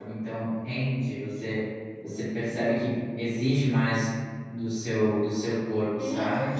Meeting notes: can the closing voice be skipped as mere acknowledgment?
No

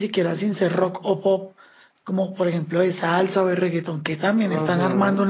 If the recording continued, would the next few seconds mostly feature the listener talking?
Yes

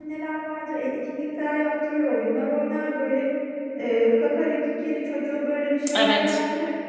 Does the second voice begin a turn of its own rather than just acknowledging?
No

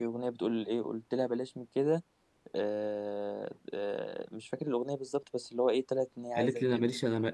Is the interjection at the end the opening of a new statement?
Yes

